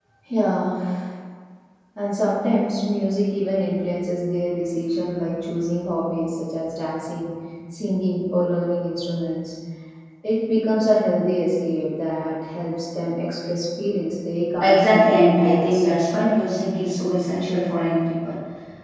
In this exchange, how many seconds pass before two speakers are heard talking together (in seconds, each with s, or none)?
14.5 s